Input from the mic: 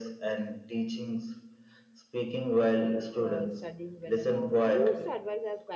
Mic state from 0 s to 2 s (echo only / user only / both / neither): echo only